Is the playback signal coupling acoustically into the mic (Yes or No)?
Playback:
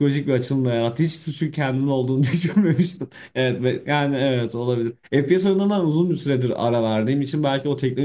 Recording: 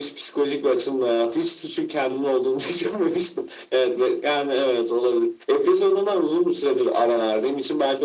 Yes